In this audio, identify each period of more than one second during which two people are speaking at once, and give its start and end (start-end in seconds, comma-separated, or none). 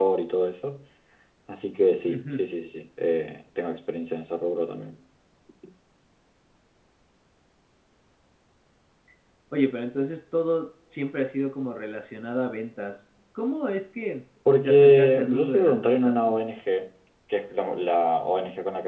14.6-16.4